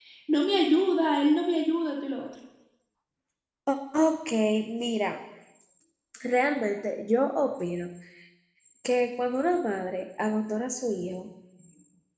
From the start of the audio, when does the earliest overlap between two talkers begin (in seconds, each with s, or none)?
none